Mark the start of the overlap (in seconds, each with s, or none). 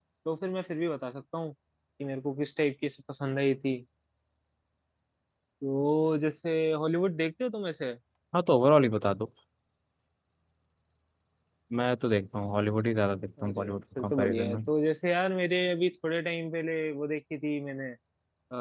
13.4 s